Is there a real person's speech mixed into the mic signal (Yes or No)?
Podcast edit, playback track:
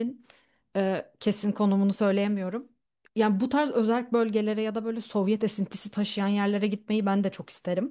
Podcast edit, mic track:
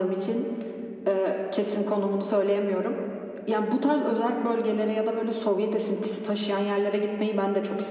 No